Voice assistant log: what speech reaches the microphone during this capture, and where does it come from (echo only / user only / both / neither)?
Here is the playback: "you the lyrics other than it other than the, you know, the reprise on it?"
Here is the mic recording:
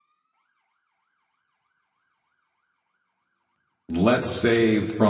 user only